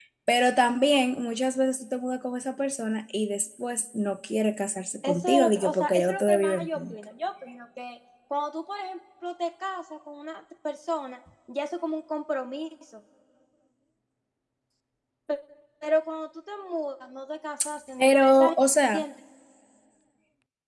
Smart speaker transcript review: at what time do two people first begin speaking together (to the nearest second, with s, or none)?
5 s